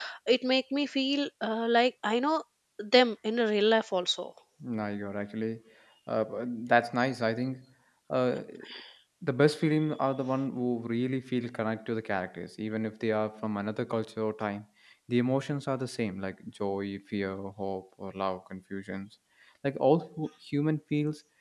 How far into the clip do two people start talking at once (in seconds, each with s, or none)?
none